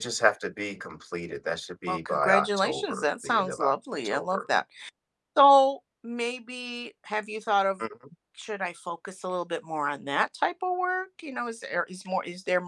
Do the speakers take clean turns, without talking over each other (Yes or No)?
No